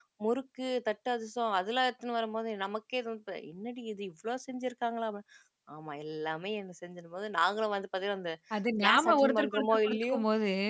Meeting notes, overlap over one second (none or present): present